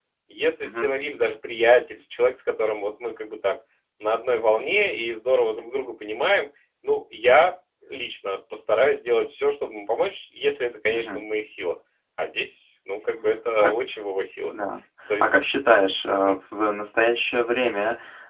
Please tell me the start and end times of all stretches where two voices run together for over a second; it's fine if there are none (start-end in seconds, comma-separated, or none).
none